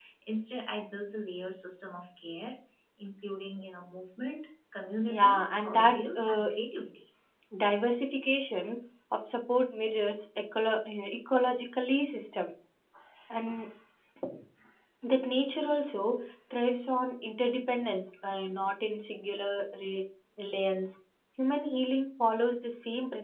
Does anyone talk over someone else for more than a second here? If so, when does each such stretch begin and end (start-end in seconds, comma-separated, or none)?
5.1-6.5